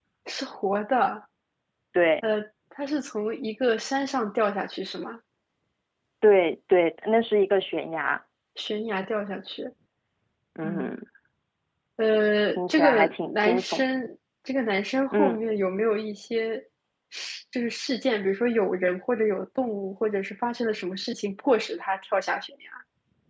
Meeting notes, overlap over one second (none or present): present